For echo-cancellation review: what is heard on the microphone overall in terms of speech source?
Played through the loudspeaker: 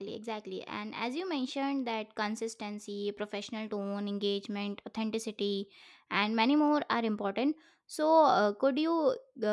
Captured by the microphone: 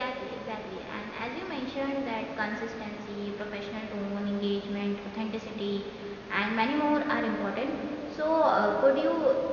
echo only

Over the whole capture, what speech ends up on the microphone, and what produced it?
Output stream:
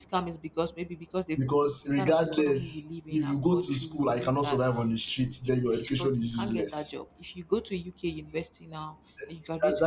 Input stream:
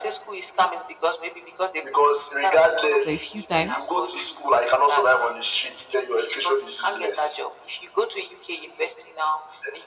both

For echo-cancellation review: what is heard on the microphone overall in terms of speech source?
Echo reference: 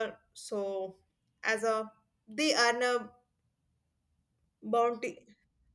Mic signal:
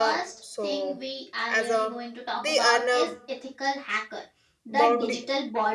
both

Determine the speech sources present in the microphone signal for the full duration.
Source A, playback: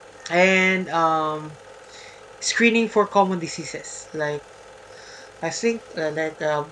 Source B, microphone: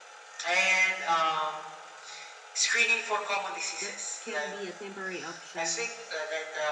both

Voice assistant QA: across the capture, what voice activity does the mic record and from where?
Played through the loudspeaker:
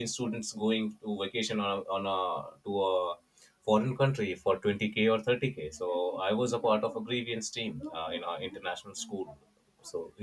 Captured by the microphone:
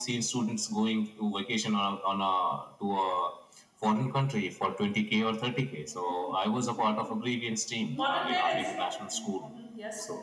both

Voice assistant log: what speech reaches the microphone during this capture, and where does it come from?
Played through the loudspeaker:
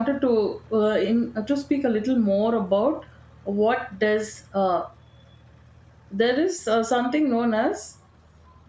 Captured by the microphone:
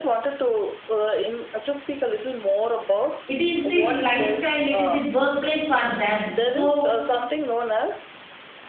both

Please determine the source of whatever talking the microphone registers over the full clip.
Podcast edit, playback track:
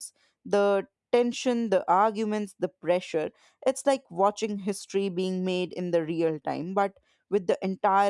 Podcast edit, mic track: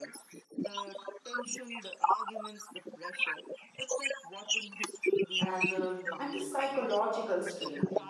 both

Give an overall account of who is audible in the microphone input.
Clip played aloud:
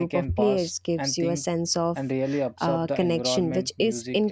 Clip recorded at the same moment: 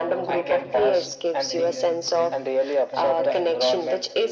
both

